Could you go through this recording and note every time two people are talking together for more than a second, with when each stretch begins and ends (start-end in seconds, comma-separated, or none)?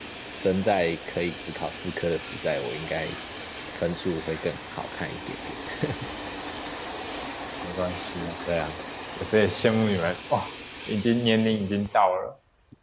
none